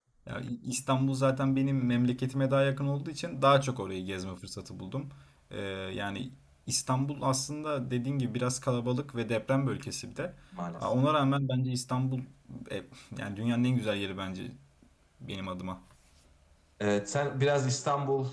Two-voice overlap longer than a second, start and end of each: none

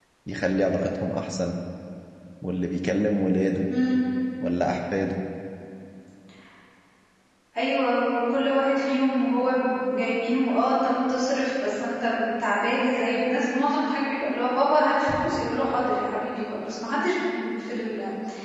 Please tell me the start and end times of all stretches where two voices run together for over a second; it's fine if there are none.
none

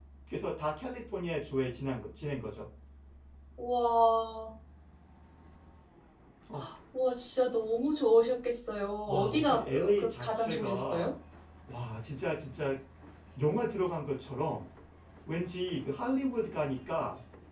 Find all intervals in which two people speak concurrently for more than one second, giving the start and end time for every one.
9.1-11.1

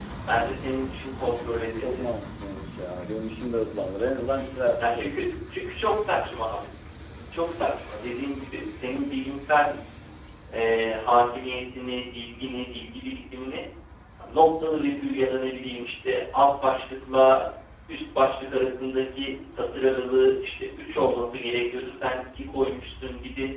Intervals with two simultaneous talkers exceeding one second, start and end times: none

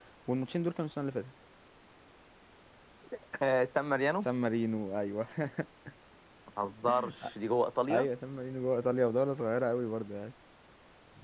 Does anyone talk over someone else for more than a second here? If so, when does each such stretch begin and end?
none

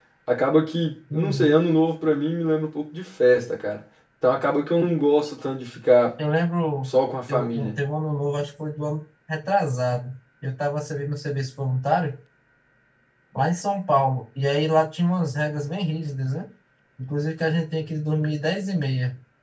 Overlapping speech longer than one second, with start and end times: none

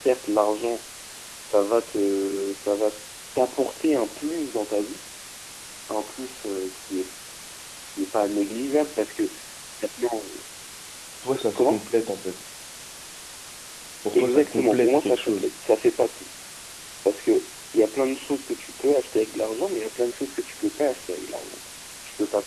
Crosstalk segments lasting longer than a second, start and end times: 14.1-15.5

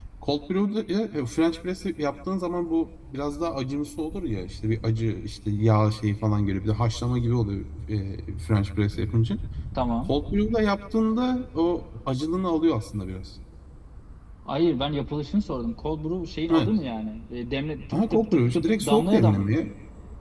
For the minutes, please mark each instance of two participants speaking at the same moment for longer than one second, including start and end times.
17.9-19.4

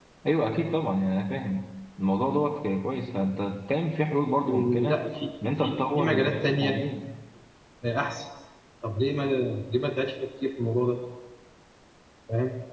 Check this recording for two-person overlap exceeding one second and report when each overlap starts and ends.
5.6-6.8

